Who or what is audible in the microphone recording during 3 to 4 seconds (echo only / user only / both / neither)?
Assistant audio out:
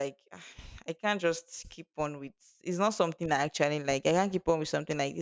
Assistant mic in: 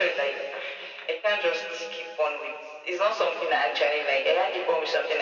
echo only